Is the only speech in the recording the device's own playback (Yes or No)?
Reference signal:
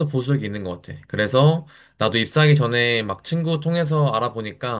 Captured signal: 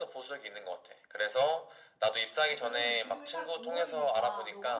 No